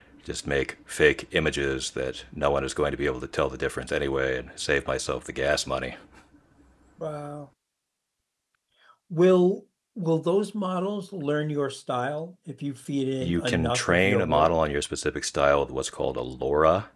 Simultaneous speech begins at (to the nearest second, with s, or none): 13 s